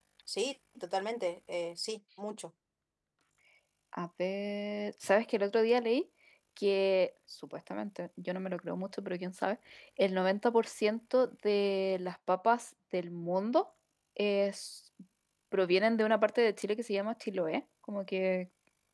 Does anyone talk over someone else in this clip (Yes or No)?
No